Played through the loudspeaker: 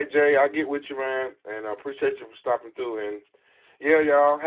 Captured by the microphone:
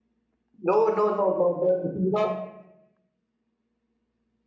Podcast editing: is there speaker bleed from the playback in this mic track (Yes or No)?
No